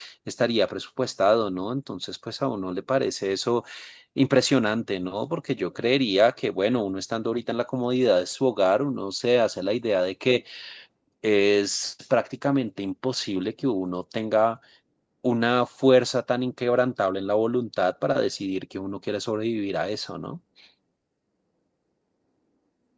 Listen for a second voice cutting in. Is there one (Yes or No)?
No